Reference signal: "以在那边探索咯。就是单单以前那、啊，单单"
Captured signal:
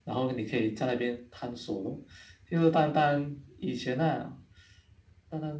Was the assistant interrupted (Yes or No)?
No